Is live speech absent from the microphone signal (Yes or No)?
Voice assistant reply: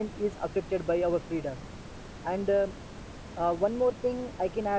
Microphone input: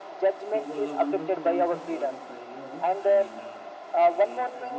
No